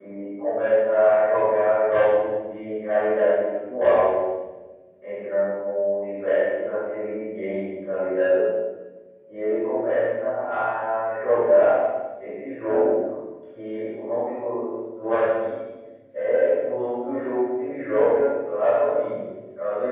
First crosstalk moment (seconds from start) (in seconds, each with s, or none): none